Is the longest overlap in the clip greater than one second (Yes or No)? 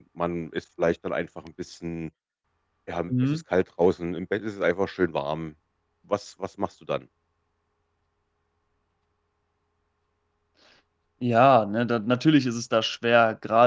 No